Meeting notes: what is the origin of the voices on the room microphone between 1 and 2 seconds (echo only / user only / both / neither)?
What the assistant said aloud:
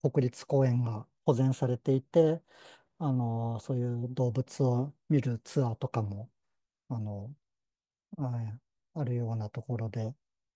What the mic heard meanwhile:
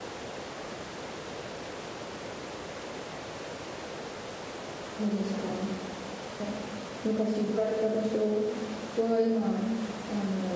neither